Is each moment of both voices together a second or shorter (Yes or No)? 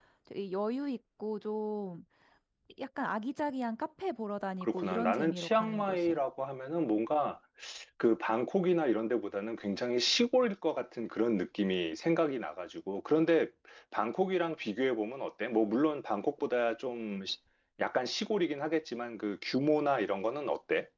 No